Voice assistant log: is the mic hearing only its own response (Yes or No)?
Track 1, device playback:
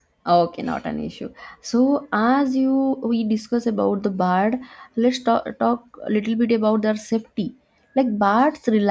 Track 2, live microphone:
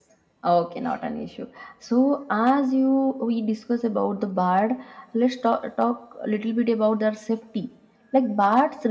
Yes